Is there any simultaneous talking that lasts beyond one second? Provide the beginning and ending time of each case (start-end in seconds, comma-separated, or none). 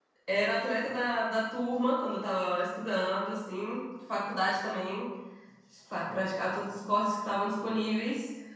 none